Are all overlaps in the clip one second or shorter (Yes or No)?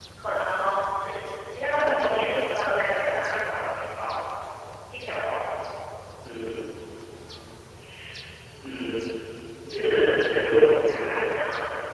No